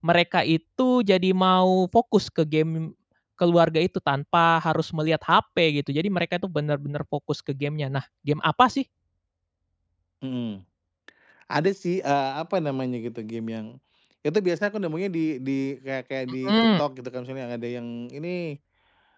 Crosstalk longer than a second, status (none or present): none